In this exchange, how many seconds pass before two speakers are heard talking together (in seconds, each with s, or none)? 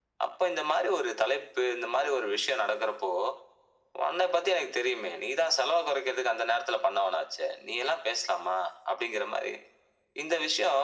none